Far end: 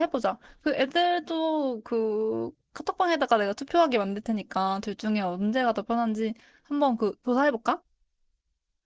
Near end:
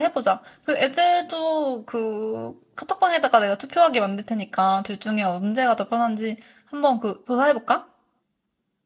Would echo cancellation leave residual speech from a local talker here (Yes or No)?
No